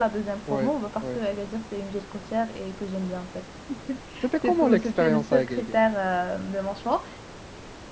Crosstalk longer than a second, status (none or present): present